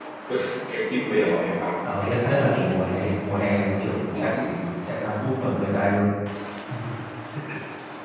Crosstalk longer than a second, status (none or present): present